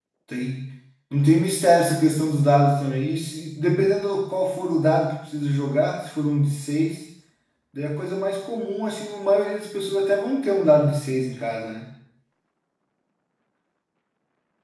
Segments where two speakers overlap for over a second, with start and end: none

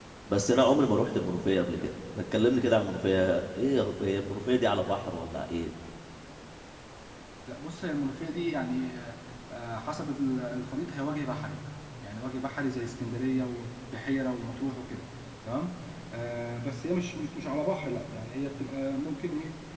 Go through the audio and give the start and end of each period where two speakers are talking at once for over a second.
none

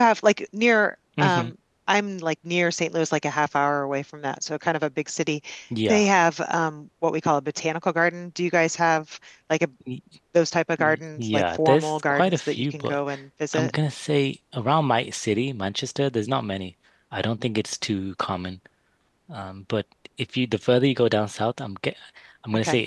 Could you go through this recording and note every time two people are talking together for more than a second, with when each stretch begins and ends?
10.8-13.0

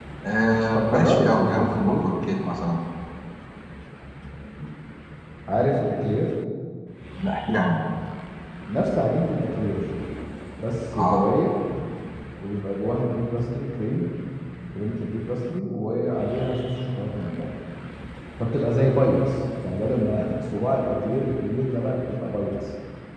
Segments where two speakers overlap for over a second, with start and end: 0.7-2.1

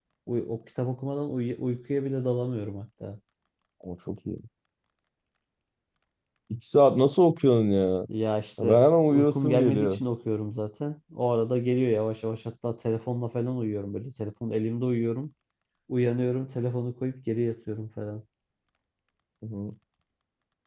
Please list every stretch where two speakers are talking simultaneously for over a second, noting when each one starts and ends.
8.6-10.0

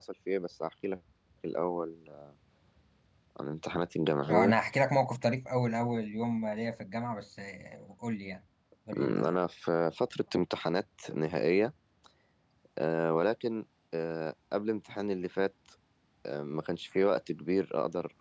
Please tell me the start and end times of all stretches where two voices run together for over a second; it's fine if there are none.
none

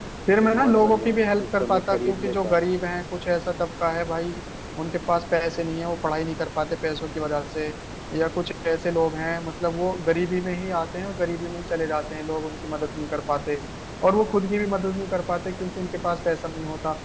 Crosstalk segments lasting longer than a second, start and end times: 0.6-2.6

